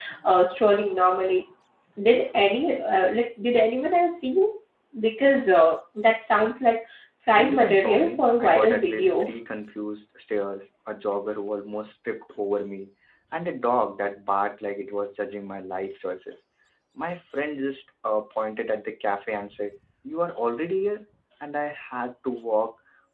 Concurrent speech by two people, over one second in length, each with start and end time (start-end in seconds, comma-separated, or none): 7.3-9.3